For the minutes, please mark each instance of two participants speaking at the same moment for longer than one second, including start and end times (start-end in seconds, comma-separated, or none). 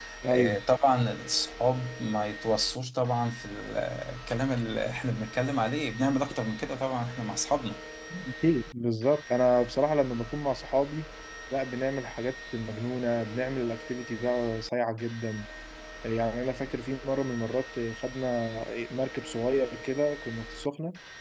none